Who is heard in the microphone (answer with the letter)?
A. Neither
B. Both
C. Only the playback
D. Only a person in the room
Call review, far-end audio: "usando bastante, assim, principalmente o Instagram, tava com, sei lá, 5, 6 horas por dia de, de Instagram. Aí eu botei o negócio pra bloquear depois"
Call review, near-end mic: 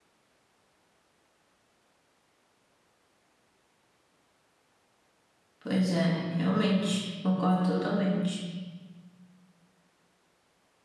D